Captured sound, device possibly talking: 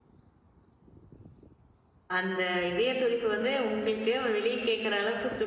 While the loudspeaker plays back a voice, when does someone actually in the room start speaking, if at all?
2.2 s

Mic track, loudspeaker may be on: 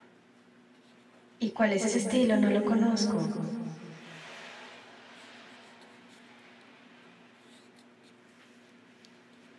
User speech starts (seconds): 1.4 s

